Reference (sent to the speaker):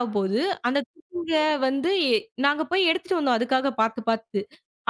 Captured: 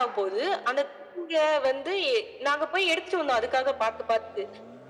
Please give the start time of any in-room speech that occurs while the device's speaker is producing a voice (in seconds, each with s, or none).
none